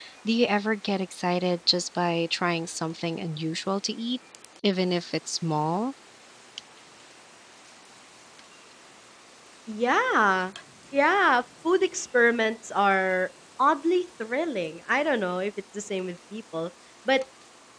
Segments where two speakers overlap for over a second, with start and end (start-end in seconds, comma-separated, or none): none